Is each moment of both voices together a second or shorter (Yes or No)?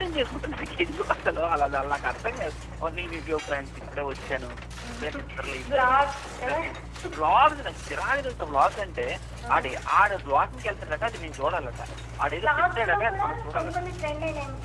No